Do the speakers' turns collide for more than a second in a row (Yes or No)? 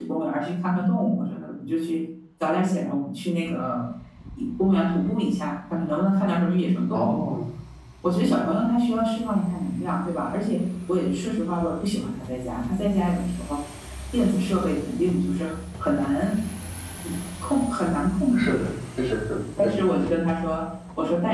No